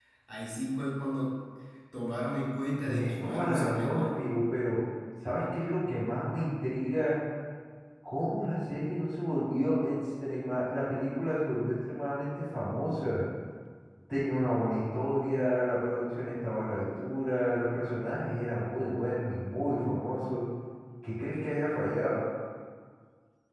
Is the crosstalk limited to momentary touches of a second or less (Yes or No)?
No